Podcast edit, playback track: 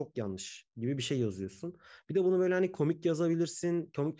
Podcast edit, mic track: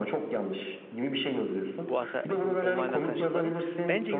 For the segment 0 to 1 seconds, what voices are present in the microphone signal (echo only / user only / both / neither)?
echo only